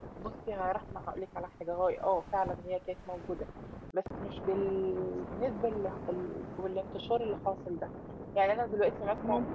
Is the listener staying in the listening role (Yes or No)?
Yes